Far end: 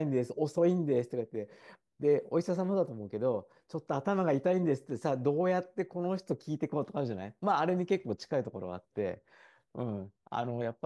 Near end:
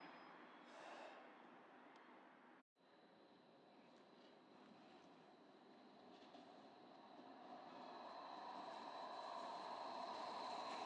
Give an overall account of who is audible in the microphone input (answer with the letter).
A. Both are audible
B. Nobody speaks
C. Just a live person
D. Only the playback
B